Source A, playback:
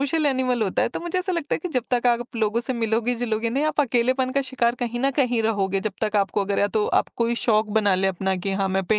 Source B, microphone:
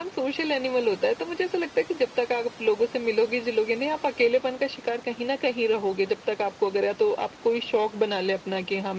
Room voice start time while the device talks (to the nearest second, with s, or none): none